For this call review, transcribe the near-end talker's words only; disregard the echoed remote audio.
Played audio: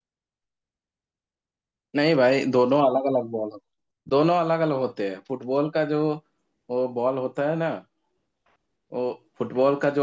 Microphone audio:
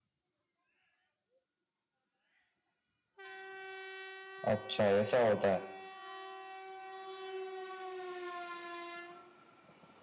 अच्छा ऐसा होता है

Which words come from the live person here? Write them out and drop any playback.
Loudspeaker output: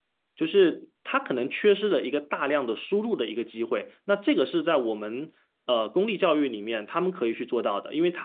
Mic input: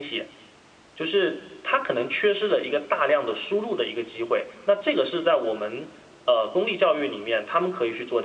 none

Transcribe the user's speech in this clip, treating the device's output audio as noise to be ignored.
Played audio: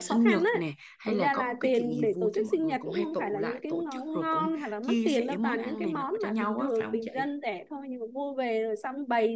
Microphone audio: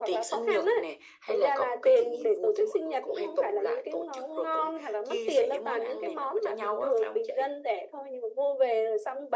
none

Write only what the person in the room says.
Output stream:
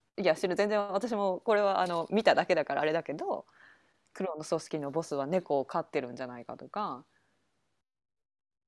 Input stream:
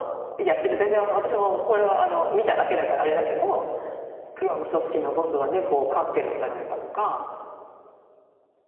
none

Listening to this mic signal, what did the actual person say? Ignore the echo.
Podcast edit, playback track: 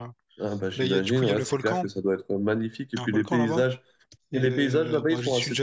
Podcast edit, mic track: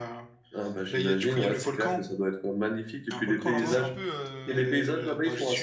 Tu sais, c'est un peu. euh,

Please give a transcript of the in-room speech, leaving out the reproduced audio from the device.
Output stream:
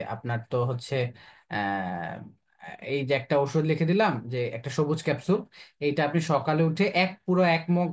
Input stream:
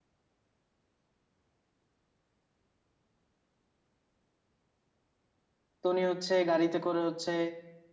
তো উনি হচ্ছে গাড়িতে করে হচ্ছে

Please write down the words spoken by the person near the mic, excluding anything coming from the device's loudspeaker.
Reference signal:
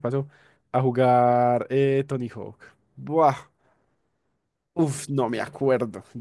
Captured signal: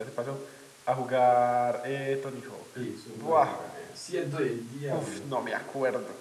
Sí, subnáutica. Eh, ciento y el diablo.

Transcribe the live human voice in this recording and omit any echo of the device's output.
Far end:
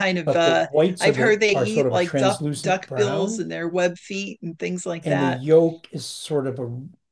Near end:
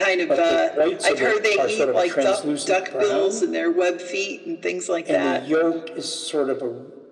none

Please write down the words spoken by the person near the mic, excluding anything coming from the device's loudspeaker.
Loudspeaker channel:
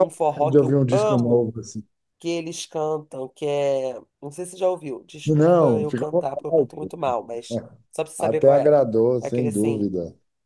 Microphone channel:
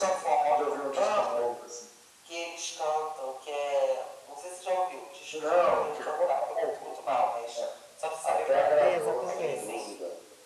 Exatamente.

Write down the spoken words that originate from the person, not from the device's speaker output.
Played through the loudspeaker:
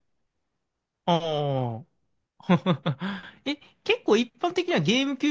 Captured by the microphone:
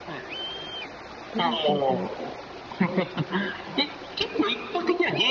ルーキーズ。

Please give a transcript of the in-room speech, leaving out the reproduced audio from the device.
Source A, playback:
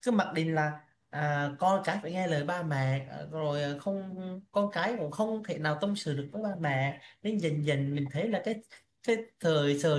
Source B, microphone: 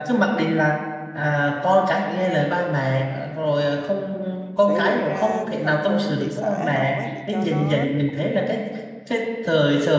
sẽ gửi ra thành phố thị xã học ấy, để cho nó

